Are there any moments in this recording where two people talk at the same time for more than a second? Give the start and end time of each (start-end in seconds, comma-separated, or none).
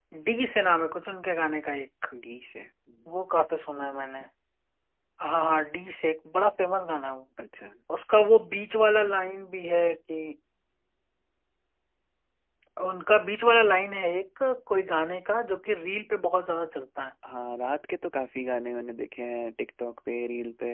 none